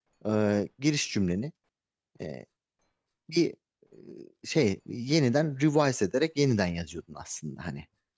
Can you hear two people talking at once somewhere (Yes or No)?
No